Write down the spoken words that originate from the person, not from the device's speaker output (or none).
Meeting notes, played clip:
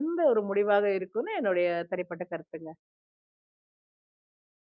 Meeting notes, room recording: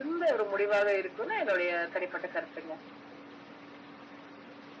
none